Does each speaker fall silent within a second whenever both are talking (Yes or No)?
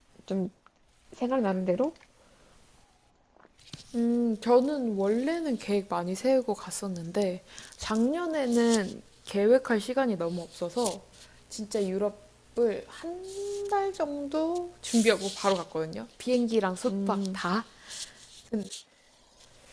Yes